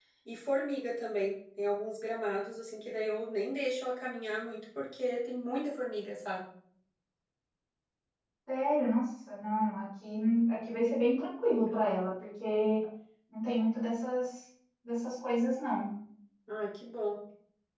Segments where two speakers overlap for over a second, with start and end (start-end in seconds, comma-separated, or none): none